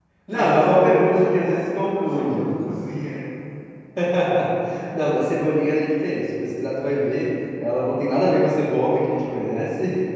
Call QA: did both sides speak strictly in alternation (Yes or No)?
No